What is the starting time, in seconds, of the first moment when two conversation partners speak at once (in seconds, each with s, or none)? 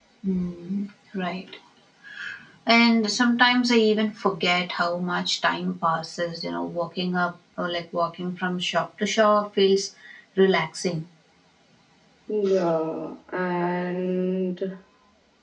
none